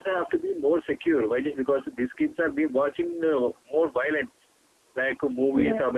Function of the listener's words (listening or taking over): listening